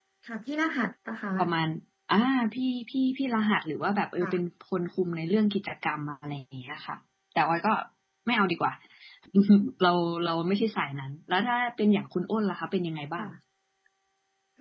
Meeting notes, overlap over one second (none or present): none